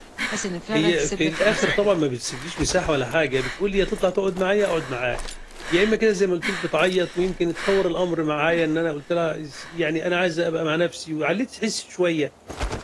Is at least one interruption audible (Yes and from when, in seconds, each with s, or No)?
Yes, from 0.7 s